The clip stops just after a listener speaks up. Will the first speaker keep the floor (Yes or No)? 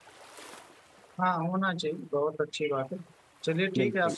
Yes